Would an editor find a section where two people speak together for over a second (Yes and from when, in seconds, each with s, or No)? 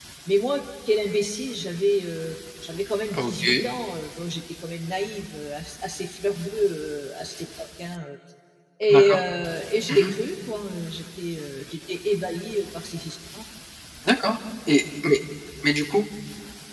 No